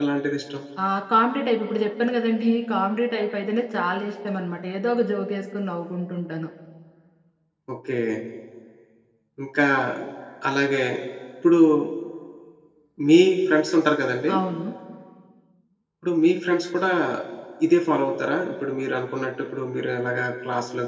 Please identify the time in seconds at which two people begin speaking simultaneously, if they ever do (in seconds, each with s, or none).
none